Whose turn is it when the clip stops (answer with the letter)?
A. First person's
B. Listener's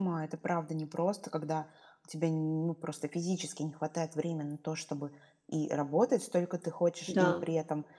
A